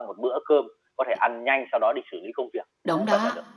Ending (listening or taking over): taking over